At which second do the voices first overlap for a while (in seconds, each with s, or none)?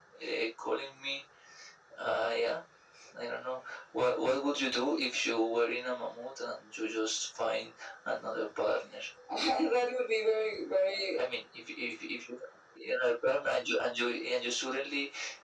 none